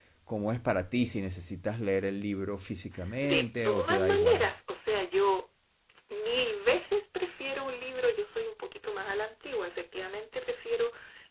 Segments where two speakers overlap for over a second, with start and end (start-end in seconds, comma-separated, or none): 3.2-4.4